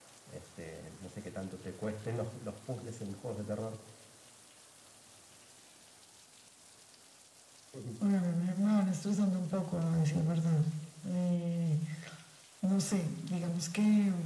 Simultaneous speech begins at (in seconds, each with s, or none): none